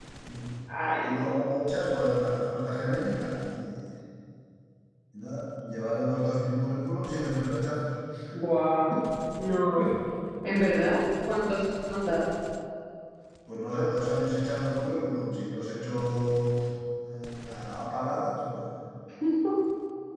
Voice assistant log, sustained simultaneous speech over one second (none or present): none